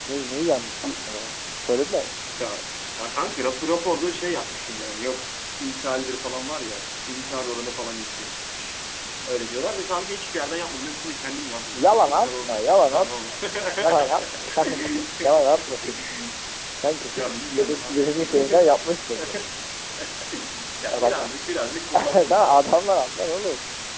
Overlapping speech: Yes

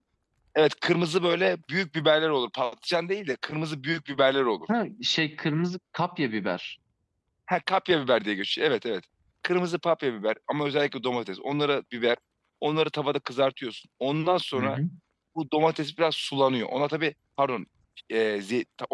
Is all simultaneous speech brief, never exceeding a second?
Yes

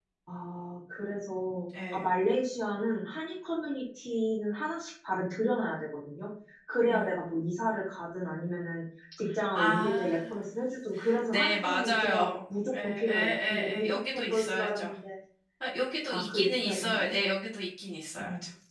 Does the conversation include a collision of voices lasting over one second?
Yes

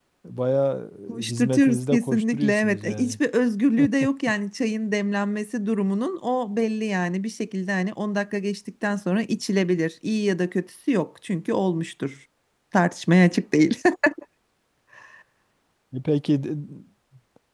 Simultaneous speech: Yes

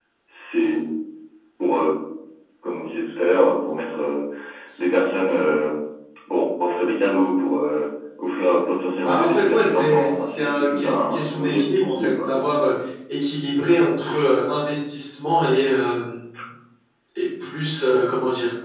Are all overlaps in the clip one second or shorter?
No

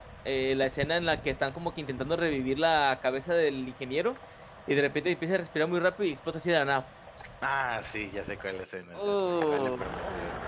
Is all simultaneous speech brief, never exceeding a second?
No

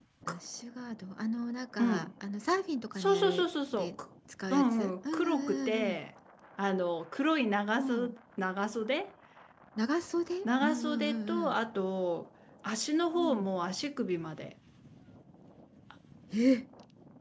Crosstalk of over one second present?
Yes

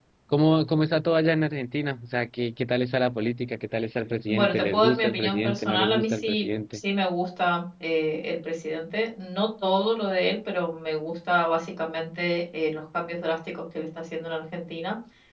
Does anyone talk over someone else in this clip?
Yes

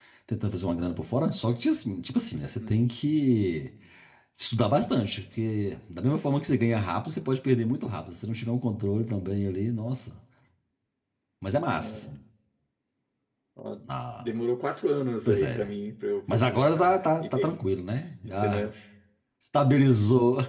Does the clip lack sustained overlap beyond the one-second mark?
No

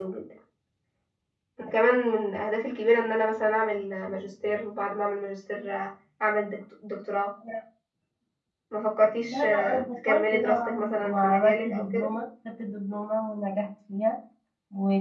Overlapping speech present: Yes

